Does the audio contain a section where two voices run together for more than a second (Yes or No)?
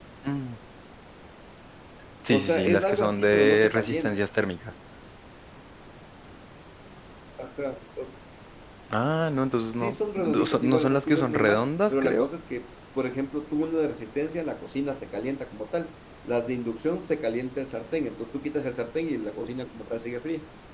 Yes